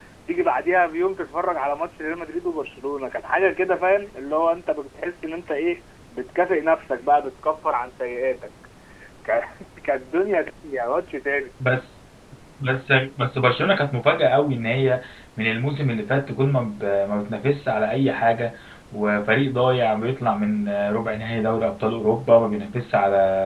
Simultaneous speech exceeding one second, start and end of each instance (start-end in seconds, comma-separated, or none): none